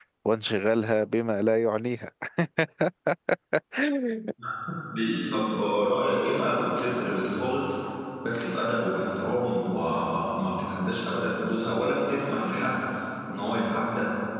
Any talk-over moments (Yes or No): No